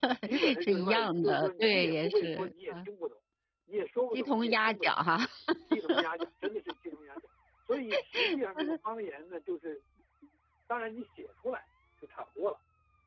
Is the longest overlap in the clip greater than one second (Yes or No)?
Yes